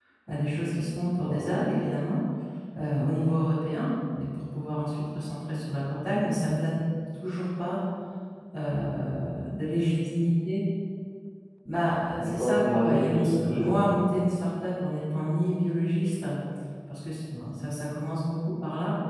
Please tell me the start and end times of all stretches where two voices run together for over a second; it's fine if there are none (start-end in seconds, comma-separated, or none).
12.2-13.9